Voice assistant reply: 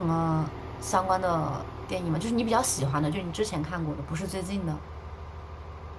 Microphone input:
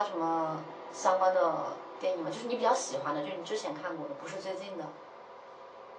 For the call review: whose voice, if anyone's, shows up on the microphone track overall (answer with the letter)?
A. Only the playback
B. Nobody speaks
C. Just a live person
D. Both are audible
A